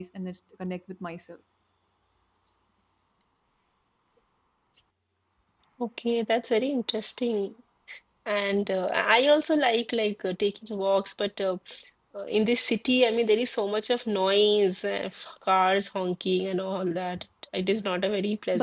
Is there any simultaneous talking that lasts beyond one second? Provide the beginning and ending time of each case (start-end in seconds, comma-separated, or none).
none